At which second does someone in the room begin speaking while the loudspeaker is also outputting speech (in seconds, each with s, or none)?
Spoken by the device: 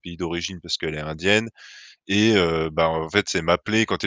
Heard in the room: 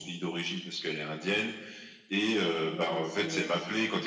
2.6 s